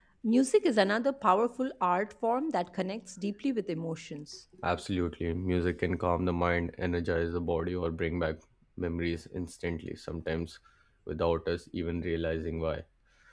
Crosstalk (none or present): none